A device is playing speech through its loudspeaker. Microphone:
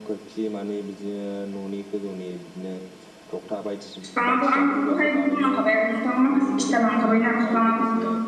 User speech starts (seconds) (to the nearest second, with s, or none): 4 s